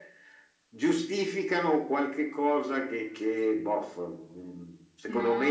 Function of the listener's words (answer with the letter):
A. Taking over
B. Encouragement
B